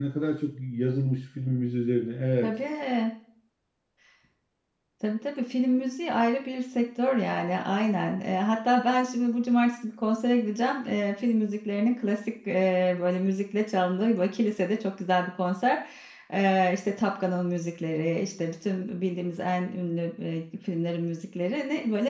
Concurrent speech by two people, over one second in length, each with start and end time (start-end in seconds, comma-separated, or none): none